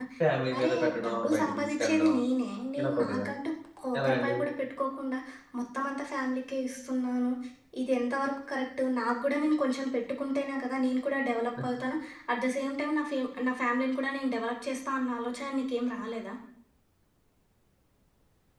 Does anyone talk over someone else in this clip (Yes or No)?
Yes